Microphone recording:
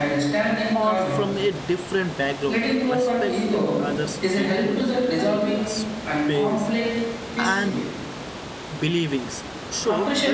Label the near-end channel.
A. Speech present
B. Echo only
A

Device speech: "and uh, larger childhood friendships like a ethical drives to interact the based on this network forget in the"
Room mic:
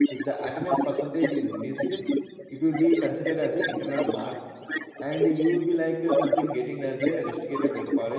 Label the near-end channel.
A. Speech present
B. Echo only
A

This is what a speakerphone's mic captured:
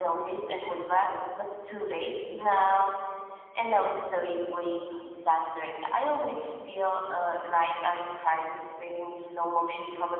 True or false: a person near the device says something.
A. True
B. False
B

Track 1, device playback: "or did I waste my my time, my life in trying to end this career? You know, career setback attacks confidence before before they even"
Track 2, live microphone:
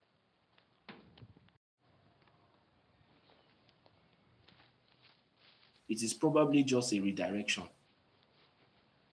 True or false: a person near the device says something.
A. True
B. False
A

